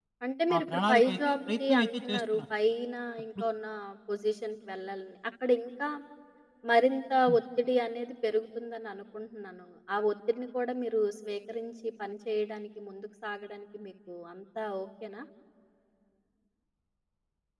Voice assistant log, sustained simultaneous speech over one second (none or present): present